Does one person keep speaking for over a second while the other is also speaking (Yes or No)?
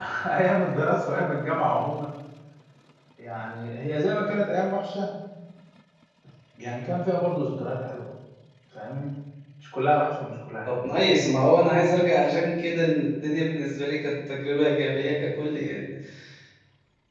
No